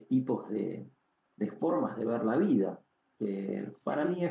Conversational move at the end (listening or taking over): listening